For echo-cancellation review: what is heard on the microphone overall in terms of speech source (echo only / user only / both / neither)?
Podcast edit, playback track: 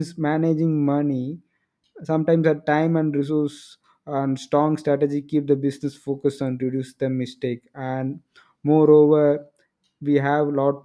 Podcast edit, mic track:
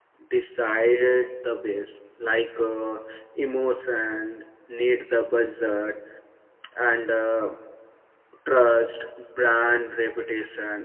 user only